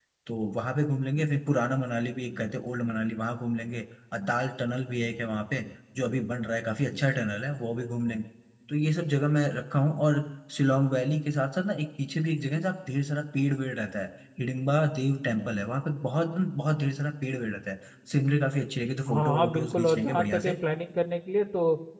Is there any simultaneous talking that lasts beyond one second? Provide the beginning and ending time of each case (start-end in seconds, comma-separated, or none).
19.1-20.6